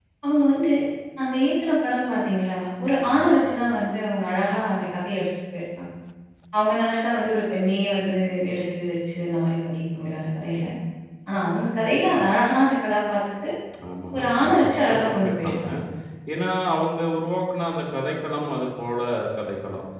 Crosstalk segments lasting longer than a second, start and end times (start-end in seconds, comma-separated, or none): 14.2-15.6